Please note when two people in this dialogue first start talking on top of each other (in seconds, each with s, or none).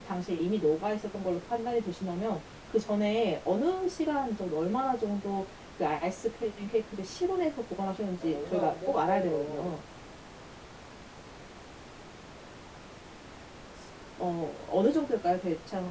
8.2 s